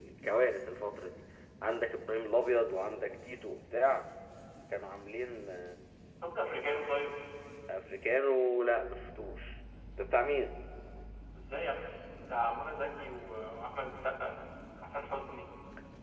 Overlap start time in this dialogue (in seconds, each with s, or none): none